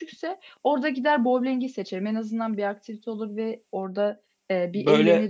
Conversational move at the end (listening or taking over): listening